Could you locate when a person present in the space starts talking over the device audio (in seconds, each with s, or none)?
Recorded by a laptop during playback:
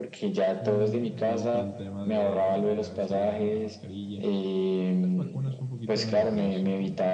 0.6 s